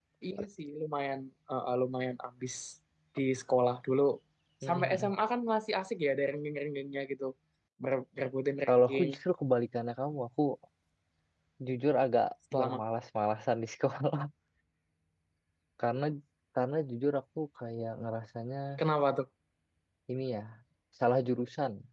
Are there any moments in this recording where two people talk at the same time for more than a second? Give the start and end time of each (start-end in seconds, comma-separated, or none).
none